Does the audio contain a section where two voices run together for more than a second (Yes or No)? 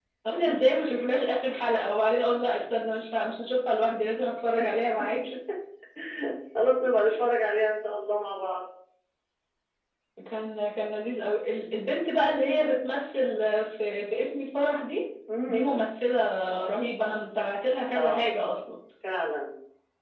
No